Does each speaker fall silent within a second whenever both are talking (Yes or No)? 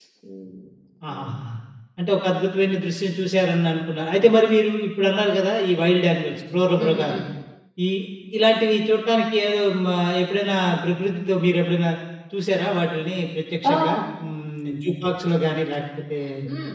Yes